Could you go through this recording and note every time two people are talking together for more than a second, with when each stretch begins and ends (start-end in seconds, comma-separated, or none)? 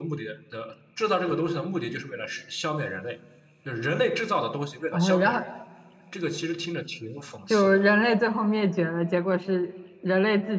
none